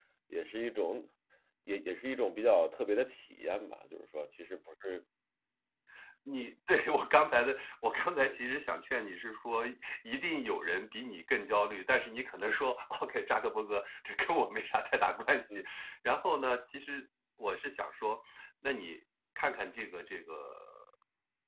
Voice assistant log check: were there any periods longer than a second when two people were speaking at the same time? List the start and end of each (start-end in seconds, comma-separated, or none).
none